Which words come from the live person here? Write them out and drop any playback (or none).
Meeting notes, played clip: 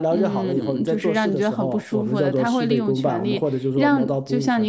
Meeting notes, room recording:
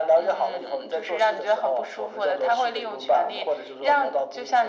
none